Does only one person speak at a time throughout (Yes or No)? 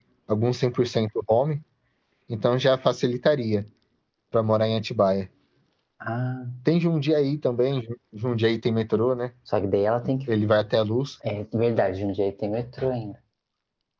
Yes